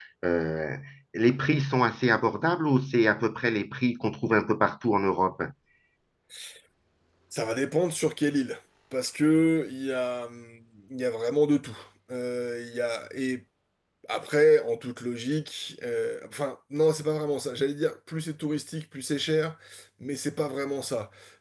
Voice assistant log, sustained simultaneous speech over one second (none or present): none